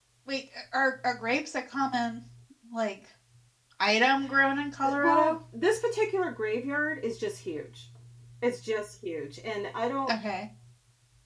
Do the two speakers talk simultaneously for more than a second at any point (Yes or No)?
No